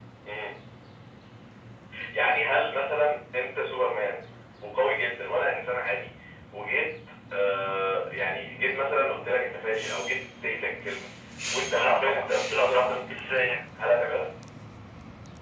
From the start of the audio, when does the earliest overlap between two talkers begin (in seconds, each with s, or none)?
11.8 s